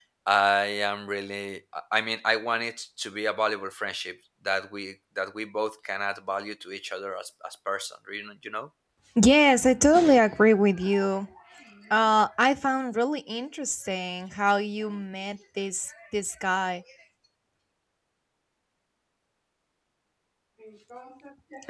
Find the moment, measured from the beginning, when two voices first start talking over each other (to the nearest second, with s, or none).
none